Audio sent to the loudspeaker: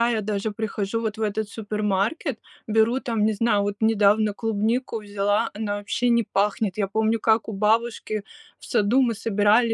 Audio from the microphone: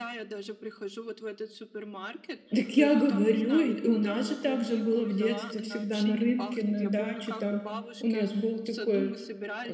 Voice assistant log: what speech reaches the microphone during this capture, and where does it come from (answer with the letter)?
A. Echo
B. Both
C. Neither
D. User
B